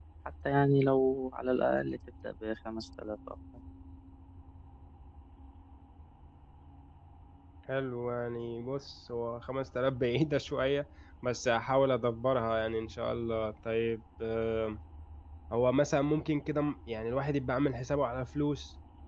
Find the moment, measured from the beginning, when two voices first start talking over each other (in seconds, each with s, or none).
none